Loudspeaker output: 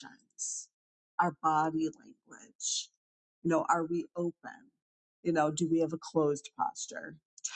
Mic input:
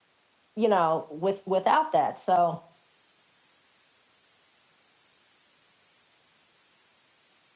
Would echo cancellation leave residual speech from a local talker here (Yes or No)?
Yes